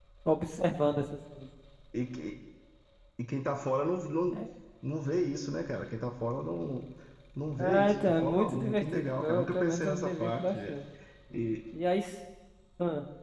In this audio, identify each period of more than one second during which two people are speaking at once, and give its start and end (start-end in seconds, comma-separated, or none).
7.6-10.7